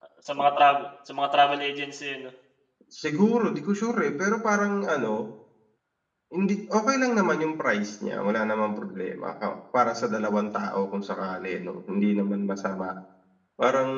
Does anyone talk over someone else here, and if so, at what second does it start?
none

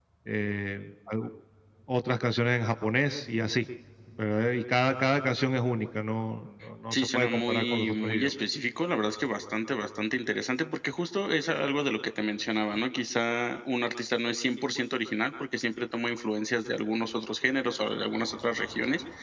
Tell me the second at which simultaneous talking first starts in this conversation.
6.9 s

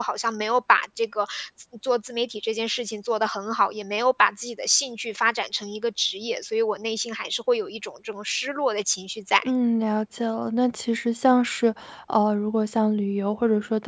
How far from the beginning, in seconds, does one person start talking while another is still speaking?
none

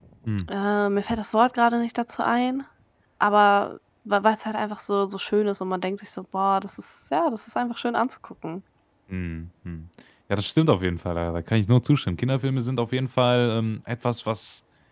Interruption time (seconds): none

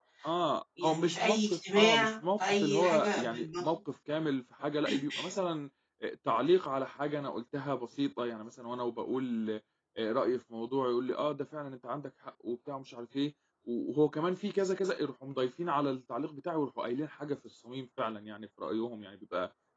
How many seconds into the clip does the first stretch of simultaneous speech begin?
0.8 s

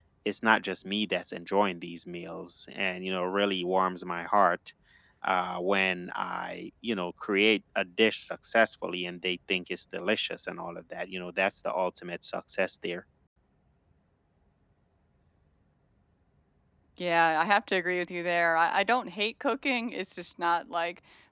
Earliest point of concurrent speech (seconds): none

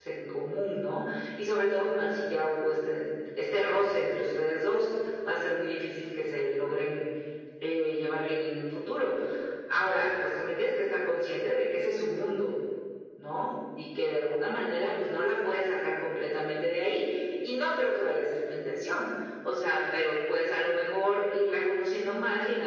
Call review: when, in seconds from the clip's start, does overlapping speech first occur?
none

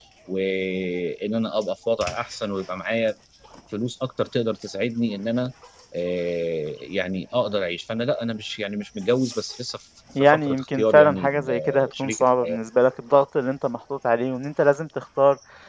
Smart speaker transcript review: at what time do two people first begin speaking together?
10.2 s

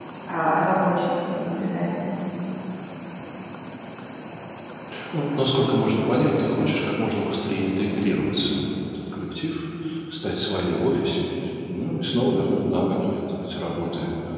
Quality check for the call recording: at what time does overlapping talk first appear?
none

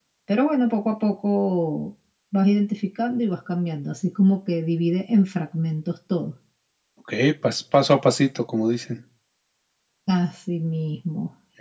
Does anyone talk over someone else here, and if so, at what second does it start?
none

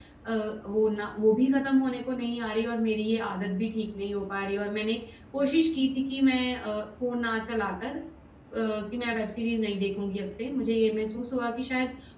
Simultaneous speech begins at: none

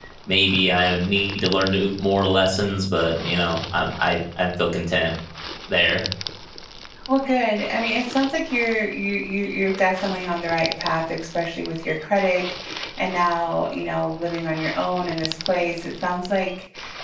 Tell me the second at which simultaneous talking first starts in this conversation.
none

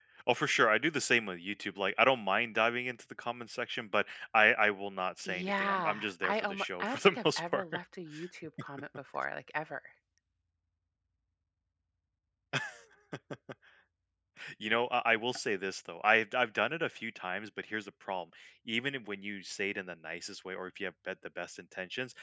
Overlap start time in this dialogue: 5.2 s

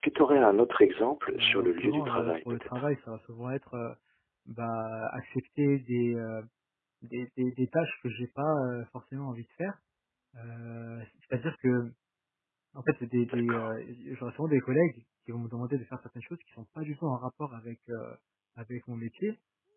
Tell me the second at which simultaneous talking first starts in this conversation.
1.3 s

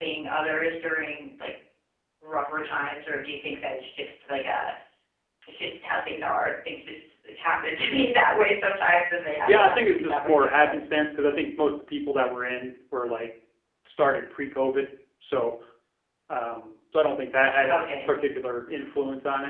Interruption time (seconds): 9.5 s

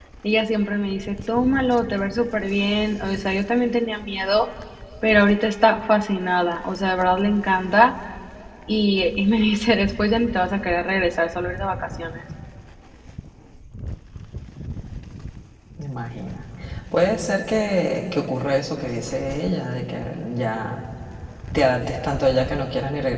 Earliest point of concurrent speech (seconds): none

